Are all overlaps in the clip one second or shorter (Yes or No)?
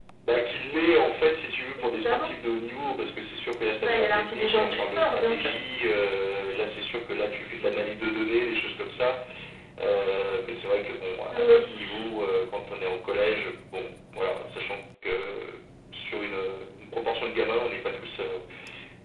No